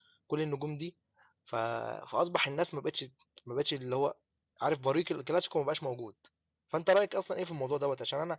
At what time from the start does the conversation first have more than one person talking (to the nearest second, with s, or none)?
none